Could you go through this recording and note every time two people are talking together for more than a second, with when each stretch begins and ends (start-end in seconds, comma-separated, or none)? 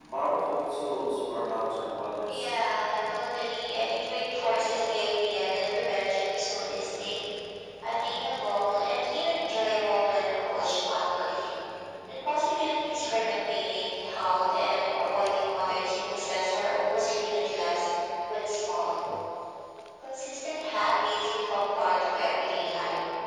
none